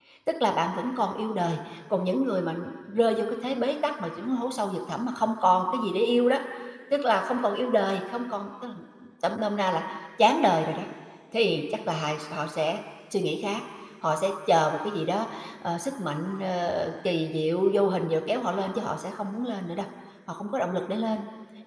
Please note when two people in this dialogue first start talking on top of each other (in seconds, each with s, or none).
none